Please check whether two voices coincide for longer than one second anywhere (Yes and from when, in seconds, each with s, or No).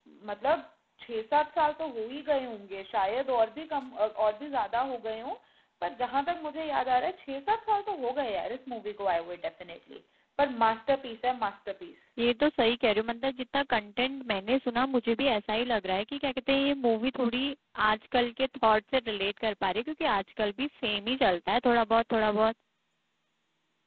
No